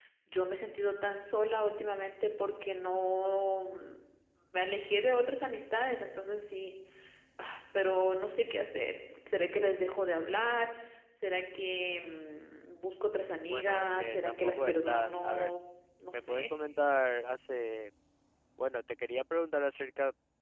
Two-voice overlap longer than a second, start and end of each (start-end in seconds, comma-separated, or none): 13.5-15.5